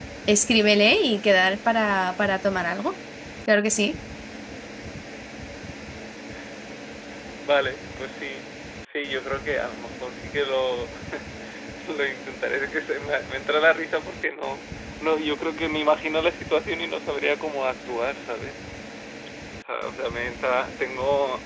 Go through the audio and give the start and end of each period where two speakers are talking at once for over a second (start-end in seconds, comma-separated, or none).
none